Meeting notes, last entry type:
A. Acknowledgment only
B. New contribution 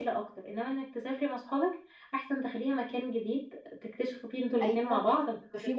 B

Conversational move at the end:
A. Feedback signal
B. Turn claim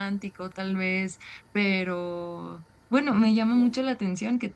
A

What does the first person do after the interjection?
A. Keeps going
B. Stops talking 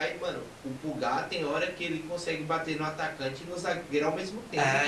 B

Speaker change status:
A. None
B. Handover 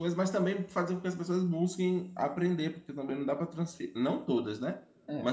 A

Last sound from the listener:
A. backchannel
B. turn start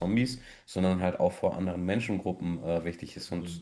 A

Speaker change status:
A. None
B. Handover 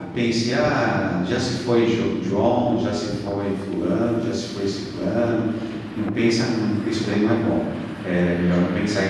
A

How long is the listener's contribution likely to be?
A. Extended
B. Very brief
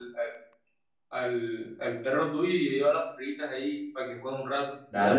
A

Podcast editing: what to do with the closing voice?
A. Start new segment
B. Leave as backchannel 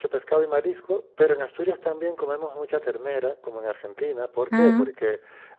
B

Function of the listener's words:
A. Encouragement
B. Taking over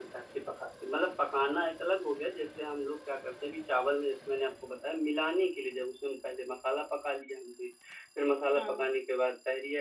A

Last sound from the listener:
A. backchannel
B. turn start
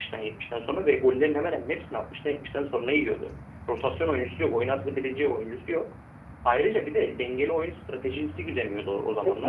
B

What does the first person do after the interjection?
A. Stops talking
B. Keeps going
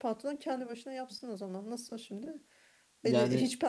B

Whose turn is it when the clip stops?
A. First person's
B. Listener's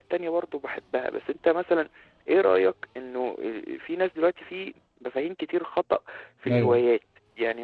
A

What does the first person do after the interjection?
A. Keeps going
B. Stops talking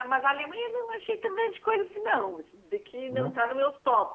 A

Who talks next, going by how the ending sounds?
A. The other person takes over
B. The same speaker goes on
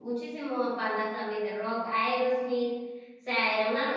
B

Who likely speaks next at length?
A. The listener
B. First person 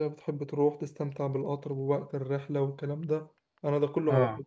B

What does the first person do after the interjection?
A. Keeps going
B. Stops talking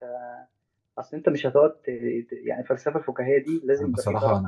B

